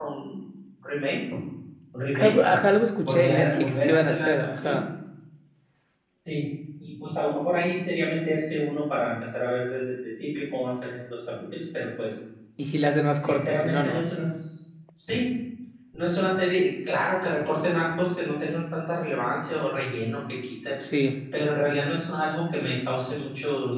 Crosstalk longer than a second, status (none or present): present